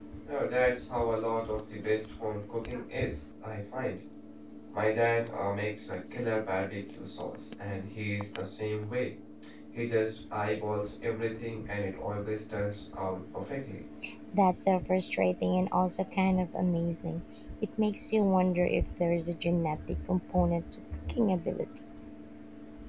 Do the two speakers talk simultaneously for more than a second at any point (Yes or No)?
No